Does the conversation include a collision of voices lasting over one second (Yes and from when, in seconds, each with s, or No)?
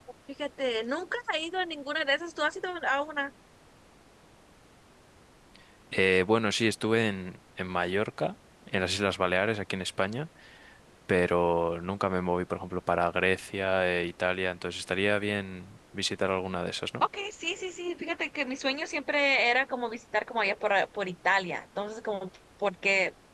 No